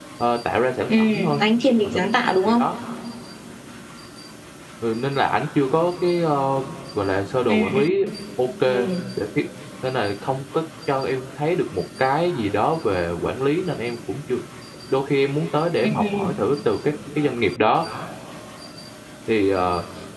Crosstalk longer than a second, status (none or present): none